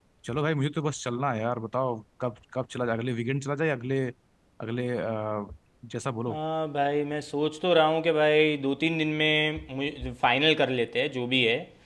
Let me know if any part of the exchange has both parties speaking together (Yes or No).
No